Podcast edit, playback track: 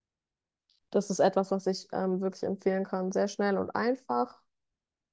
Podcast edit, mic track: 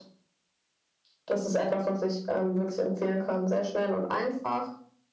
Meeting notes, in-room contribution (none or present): none